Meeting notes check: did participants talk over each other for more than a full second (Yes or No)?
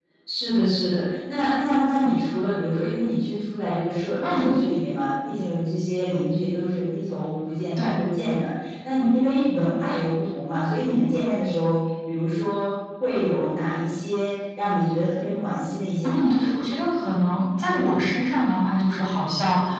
No